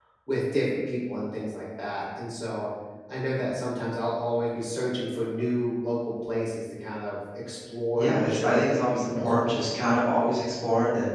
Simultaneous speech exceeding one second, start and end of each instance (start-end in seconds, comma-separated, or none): 7.9-9.6